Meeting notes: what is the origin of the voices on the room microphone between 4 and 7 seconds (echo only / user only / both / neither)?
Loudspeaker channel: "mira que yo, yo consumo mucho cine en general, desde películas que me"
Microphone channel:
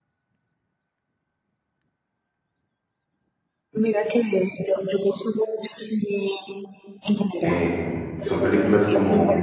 echo only